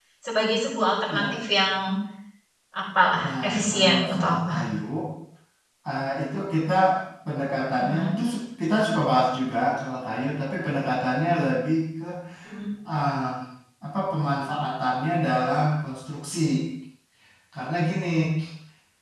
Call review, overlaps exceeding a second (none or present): present